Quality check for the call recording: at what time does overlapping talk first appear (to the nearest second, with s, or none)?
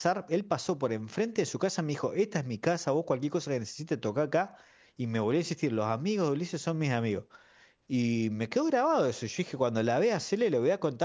none